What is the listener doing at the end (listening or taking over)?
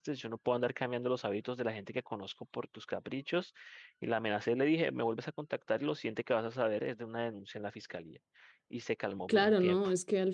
taking over